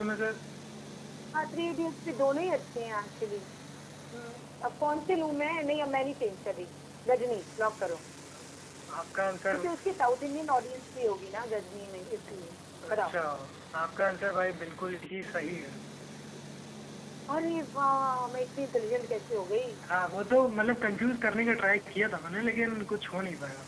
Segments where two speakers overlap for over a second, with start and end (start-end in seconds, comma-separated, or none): none